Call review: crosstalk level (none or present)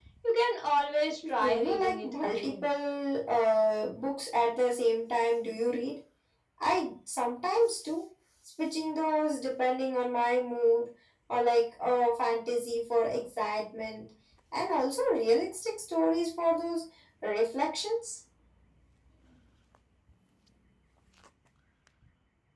present